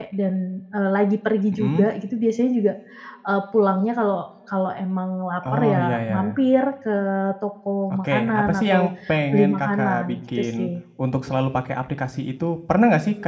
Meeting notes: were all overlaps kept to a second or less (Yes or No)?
No